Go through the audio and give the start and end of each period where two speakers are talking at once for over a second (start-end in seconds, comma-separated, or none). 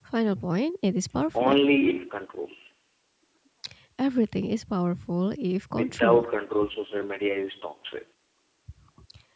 none